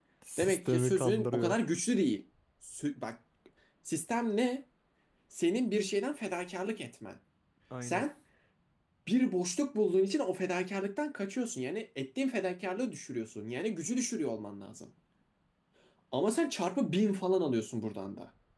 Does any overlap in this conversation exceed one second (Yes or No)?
Yes